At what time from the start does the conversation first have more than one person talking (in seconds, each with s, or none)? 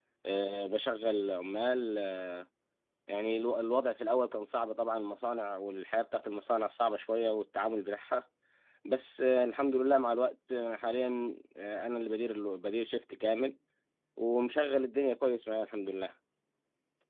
none